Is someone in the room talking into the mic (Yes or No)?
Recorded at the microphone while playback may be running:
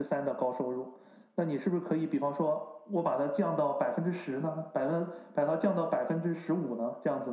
No